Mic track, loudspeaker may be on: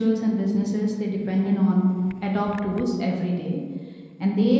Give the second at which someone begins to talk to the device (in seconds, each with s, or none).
none